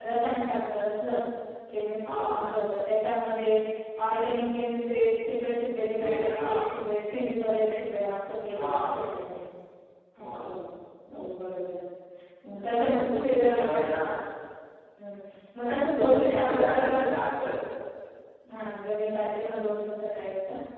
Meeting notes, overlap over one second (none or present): present